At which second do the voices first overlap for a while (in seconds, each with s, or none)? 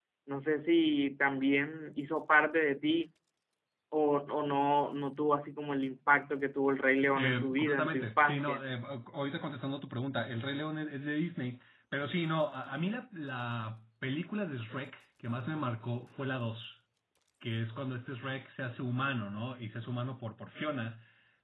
7.2 s